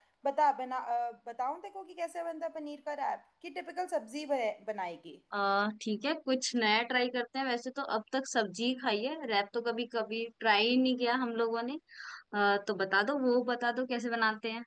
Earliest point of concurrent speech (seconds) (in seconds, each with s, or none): none